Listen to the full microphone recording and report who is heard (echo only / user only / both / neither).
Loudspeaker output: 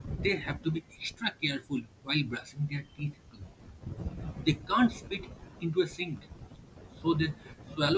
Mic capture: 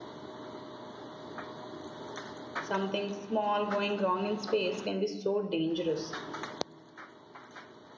user only